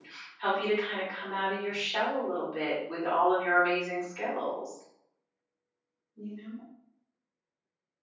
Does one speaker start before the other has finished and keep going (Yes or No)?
No